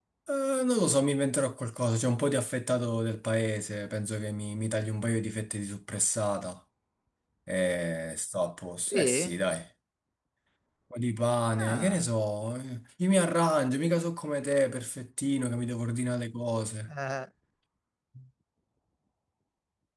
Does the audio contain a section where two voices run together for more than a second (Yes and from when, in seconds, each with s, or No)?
No